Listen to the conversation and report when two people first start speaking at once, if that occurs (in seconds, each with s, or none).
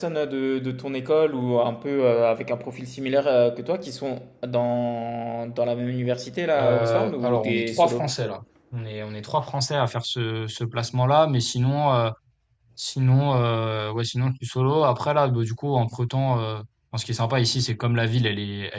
6.5 s